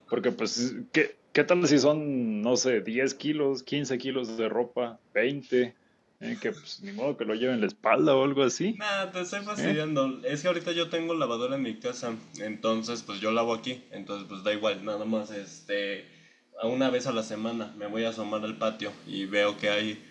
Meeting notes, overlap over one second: none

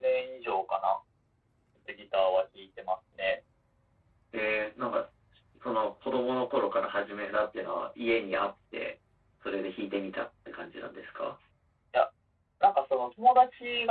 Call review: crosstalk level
none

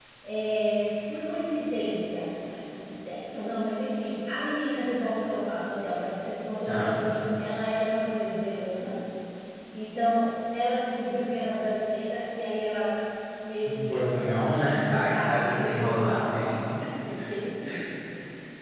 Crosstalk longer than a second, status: present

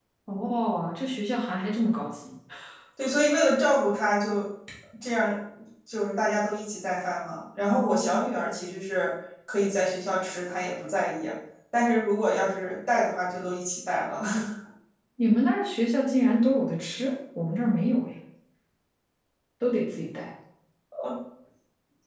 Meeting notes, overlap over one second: none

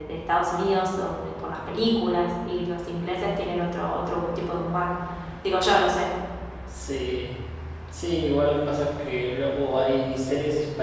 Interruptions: none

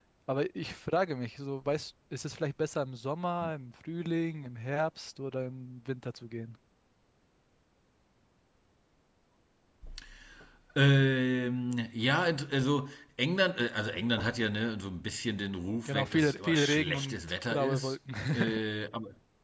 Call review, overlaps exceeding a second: present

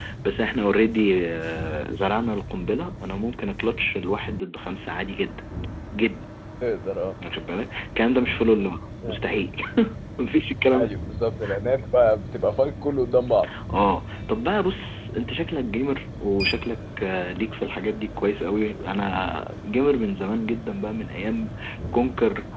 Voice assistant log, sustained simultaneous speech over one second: none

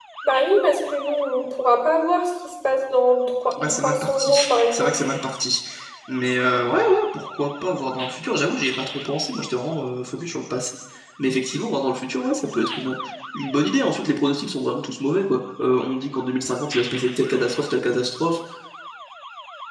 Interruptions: present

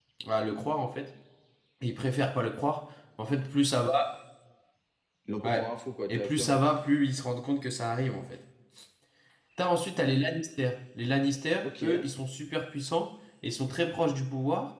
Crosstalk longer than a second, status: none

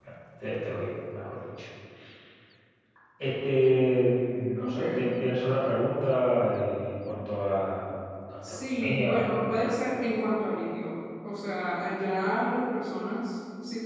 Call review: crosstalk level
present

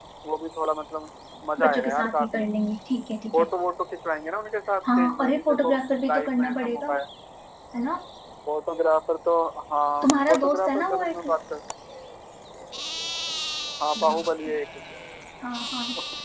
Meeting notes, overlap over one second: present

